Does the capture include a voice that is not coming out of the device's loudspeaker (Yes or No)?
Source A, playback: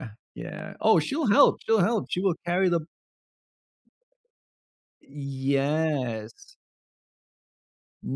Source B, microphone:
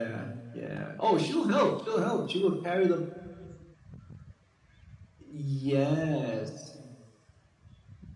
No